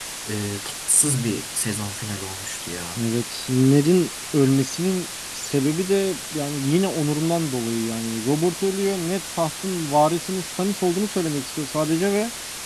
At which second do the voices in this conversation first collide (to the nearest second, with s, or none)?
none